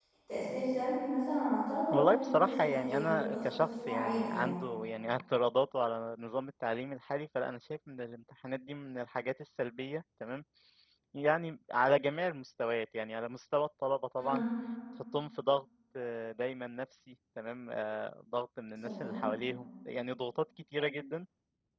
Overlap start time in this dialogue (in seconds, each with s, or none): 1.9 s